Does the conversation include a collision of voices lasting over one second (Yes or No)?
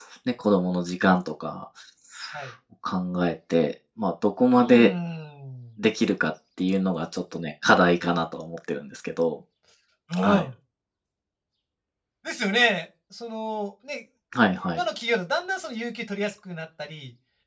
No